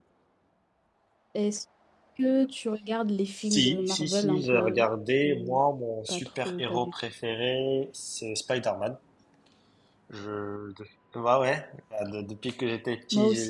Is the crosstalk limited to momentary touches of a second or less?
No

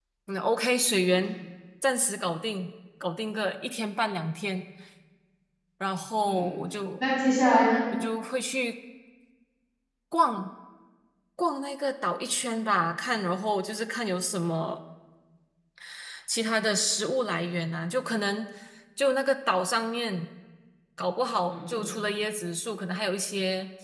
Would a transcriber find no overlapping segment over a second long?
Yes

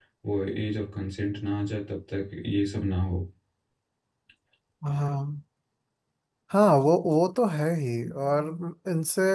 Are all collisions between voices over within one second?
Yes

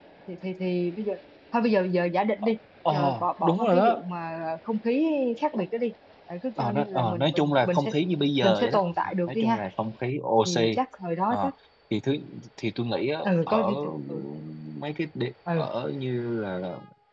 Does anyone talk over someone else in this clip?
Yes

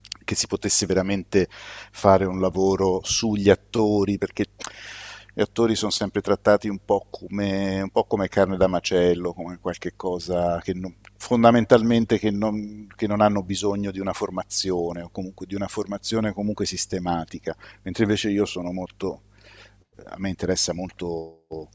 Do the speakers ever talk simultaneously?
No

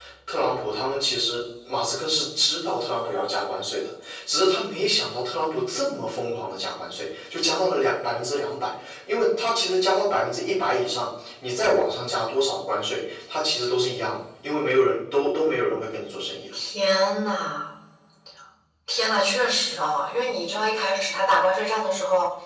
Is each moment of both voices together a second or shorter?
Yes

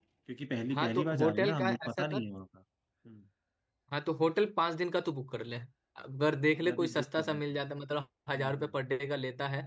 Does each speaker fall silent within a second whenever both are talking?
No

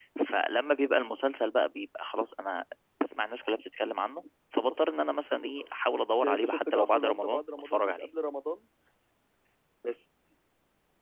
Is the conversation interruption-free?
No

